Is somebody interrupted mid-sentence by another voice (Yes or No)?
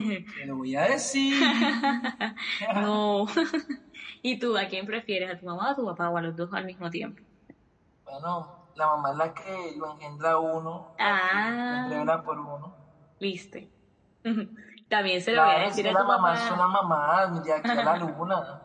Yes